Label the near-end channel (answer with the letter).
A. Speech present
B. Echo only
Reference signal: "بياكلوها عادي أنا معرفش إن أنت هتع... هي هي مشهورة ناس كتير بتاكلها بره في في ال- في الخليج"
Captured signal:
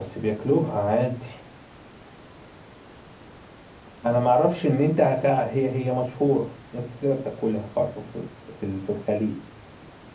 B